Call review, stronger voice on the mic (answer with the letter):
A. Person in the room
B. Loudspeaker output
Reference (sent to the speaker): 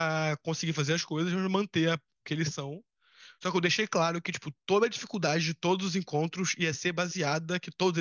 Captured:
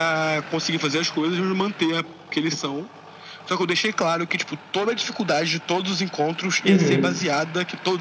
A